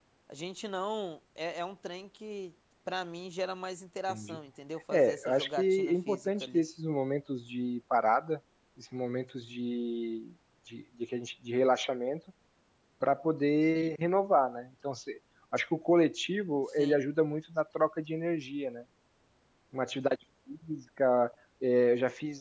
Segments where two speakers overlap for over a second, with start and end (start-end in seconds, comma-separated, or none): 4.9-6.6